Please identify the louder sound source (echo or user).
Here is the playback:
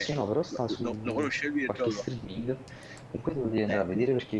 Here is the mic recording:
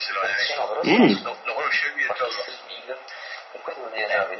user